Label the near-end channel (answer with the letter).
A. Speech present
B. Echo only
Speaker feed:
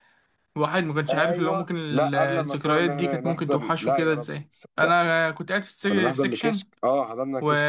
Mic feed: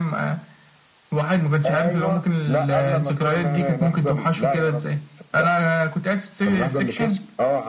B